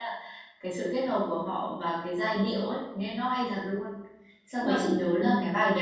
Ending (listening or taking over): listening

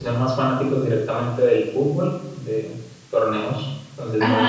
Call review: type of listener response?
taking over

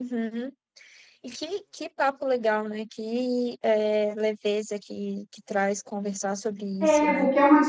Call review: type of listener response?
taking over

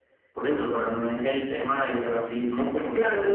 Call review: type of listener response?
taking over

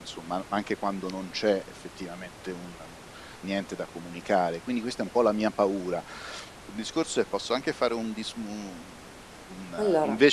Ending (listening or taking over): listening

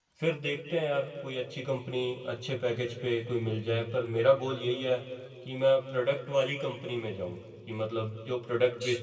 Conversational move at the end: listening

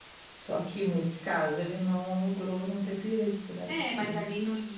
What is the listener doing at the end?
taking over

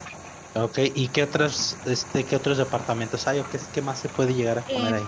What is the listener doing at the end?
taking over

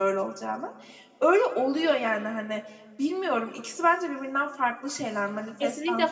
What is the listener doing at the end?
taking over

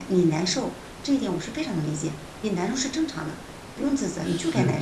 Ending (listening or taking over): taking over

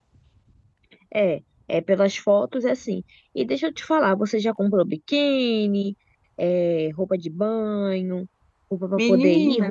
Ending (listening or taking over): listening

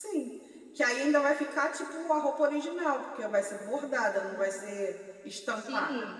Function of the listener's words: taking over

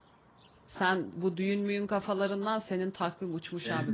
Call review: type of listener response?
taking over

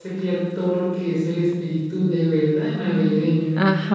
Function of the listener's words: taking over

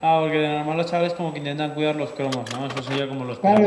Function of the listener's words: taking over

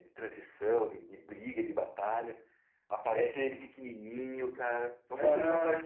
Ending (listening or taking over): taking over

